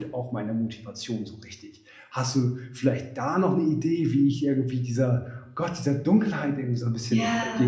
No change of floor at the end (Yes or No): No